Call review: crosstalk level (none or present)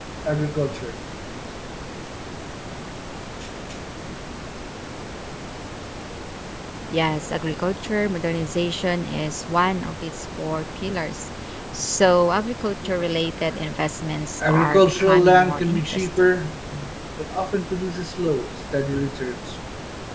present